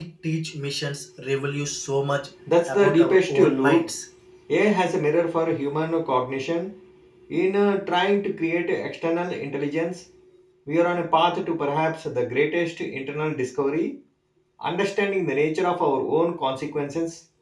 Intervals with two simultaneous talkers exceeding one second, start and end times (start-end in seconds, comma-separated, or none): 2.7-3.9